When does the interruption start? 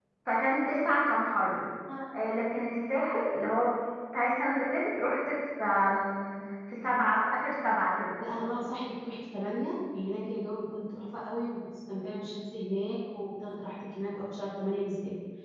none

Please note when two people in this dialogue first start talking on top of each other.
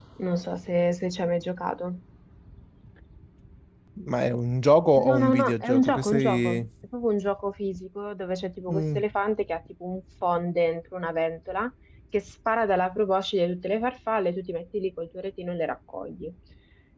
5.0 s

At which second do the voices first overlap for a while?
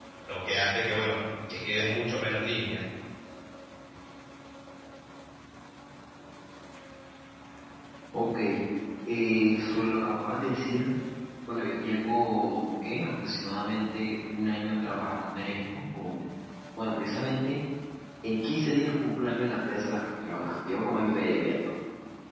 none

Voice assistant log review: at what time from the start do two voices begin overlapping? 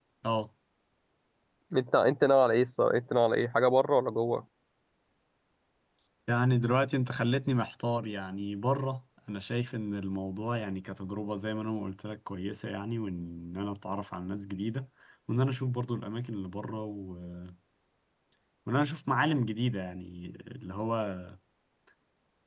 none

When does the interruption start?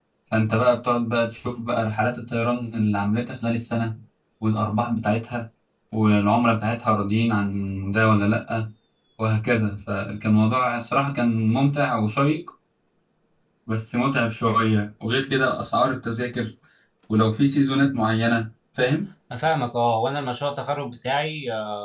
none

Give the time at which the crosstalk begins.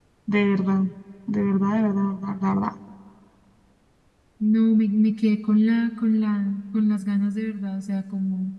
none

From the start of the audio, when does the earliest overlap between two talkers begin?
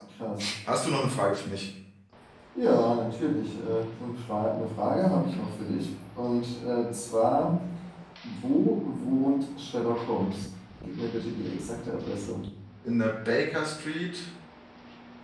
none

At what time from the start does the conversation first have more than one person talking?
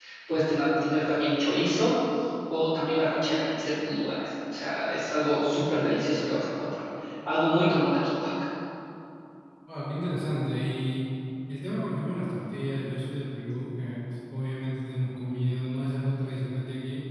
none

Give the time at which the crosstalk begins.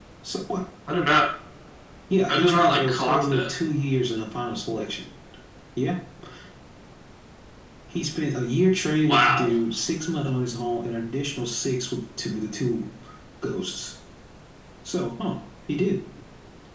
2.3 s

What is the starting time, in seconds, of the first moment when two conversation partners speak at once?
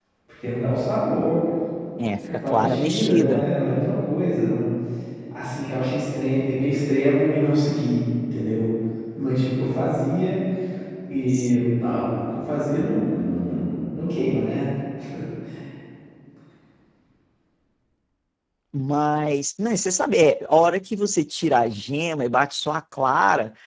2.2 s

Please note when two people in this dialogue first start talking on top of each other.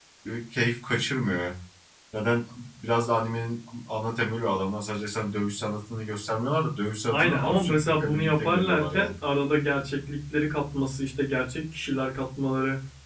7.1 s

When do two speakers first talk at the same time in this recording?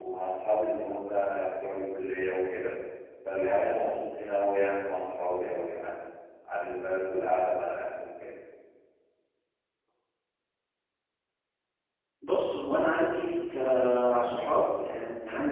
none

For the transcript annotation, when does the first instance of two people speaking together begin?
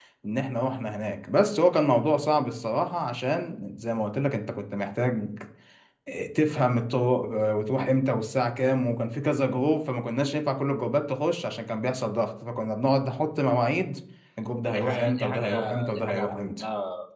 14.7 s

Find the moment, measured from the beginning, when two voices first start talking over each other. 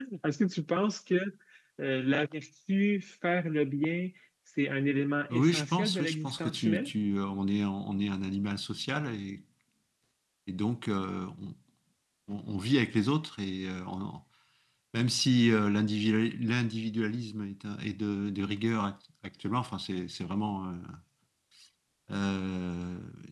5.3 s

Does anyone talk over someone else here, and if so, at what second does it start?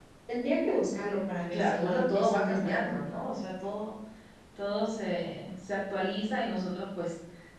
1.5 s

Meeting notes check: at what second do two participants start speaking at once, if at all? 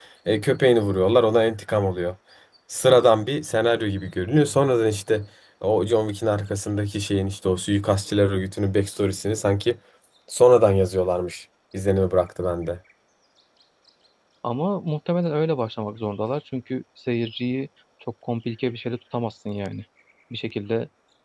none

